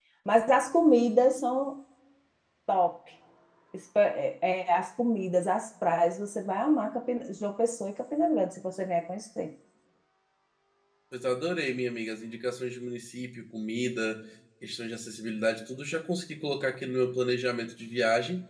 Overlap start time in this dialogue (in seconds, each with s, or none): none